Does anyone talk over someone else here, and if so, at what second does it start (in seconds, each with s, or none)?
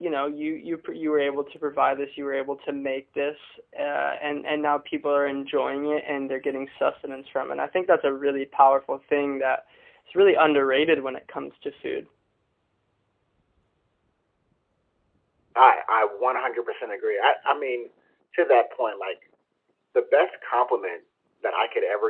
none